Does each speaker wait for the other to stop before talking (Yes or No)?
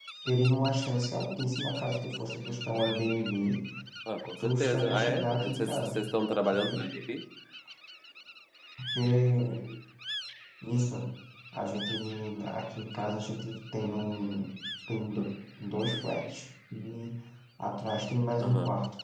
No